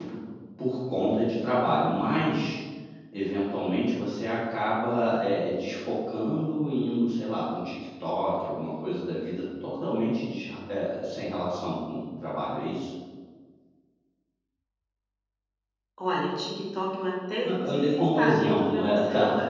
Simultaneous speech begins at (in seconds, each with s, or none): 17.4 s